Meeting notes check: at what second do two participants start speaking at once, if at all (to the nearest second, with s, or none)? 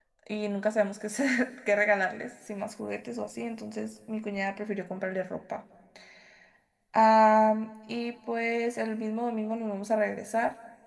none